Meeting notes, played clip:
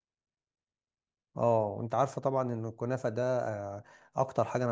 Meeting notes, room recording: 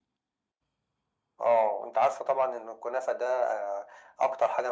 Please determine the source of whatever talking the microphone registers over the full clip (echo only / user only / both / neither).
echo only